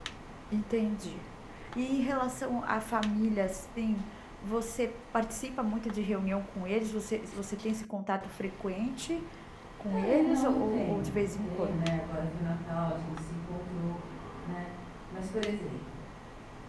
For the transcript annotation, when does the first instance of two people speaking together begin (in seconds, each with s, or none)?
9.8 s